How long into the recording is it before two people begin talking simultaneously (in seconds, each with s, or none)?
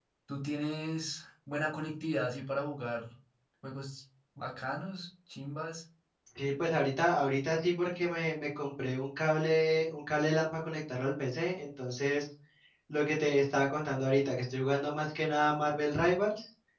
none